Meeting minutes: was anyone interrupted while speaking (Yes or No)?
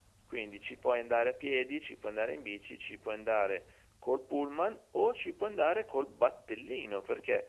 No